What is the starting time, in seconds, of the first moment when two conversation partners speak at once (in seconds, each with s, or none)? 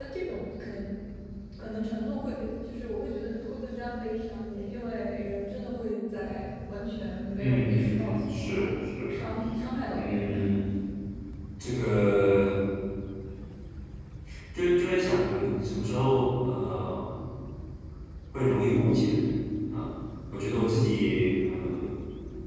7.4 s